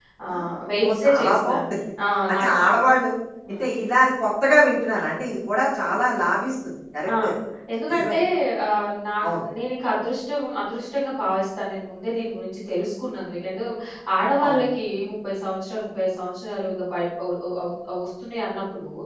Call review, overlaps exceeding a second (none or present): present